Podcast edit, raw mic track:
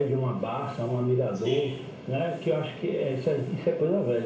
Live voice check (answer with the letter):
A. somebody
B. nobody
A